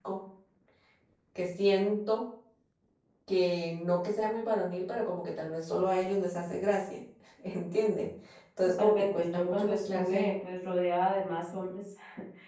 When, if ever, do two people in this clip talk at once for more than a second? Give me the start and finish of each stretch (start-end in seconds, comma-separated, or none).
8.7-10.3